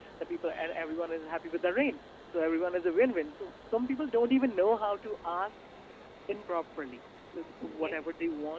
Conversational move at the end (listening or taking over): listening